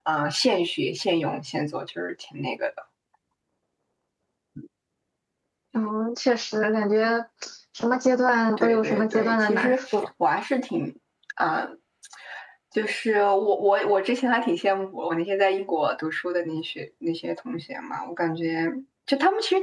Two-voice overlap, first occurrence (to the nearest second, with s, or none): 9 s